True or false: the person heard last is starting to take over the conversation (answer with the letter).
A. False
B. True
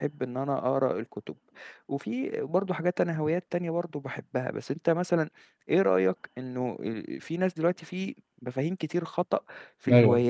A